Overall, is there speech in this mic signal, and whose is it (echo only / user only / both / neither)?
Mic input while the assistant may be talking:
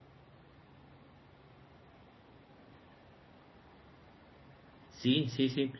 user only